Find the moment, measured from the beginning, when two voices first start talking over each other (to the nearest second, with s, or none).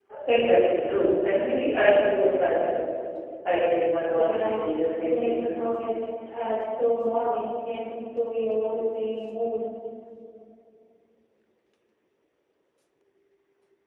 4 s